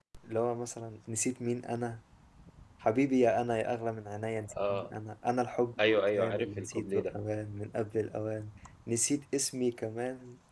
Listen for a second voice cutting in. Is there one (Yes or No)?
Yes